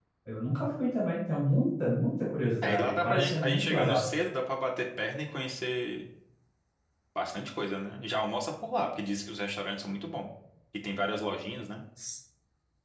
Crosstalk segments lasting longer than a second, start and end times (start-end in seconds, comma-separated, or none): 2.6-4.0